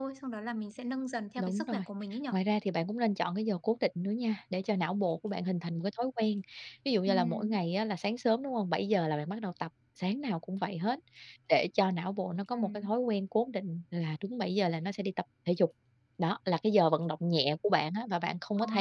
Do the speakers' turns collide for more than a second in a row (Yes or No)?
No